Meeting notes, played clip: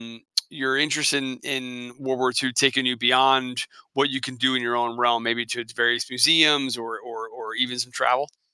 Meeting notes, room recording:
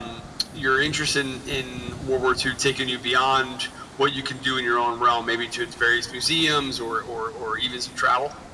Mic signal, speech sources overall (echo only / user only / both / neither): echo only